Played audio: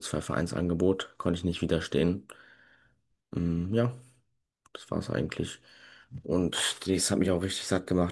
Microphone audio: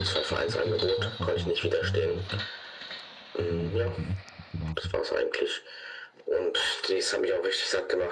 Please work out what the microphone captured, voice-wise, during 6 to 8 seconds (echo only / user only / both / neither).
echo only